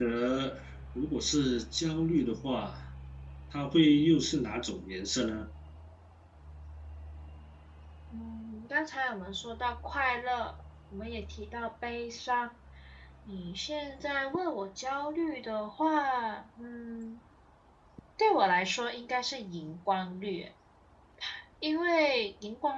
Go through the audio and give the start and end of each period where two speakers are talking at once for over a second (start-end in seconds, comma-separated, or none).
none